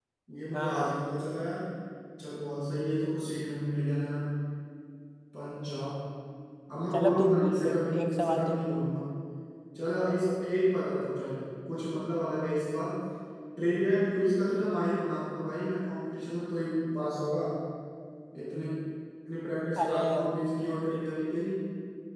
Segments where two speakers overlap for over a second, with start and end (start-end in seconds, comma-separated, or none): 6.9-8.6